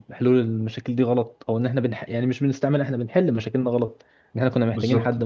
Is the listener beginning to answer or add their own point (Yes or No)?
No